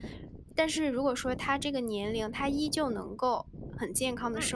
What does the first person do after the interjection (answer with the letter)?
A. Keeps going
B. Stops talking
A